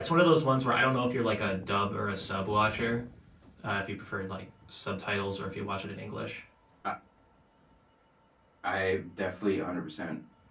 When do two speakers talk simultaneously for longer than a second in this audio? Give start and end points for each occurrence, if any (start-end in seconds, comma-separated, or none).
none